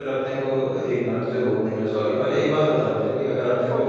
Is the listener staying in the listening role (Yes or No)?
Yes